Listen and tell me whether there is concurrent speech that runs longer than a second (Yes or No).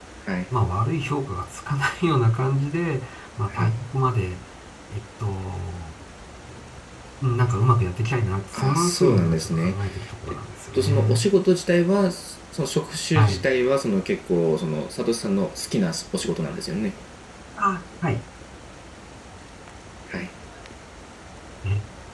Yes